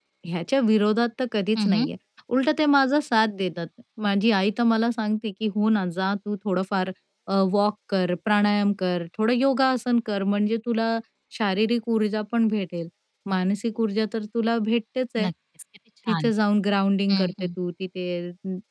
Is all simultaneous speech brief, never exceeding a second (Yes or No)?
Yes